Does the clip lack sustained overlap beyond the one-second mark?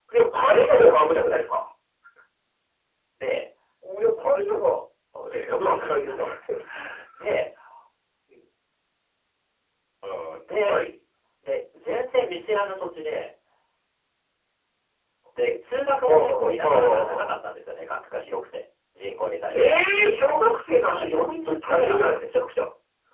No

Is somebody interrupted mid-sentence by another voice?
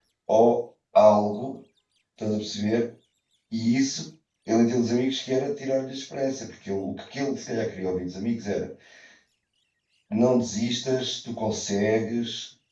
No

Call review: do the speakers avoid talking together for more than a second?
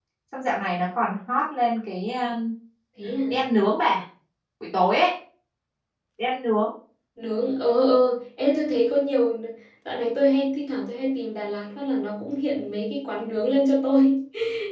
Yes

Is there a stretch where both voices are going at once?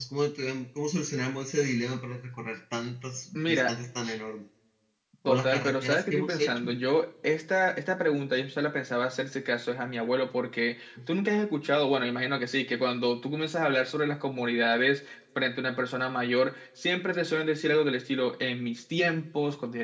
Yes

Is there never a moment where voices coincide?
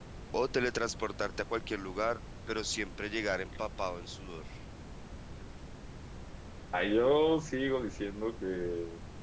Yes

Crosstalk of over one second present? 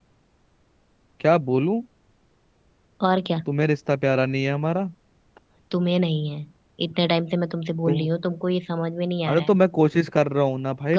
No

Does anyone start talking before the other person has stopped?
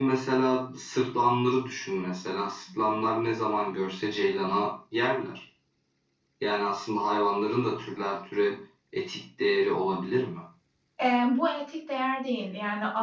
No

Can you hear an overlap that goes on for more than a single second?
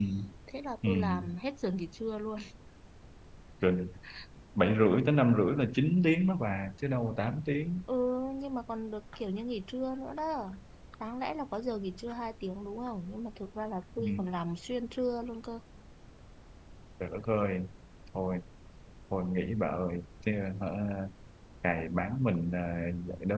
No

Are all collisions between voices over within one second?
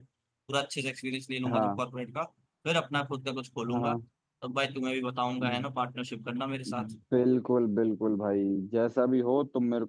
Yes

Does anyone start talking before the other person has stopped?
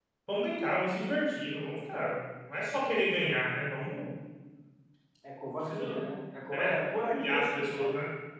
Yes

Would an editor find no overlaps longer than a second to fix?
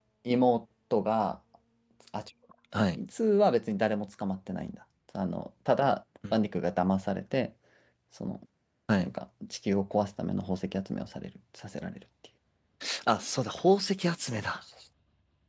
Yes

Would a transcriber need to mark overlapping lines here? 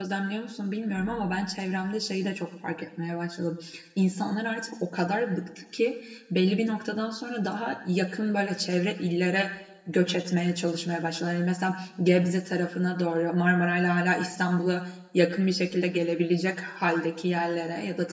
No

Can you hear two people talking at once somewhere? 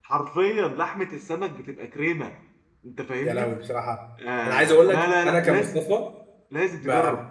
Yes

